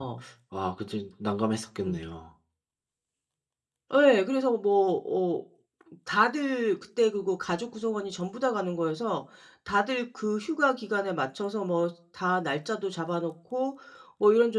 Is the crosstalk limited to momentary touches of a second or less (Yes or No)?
Yes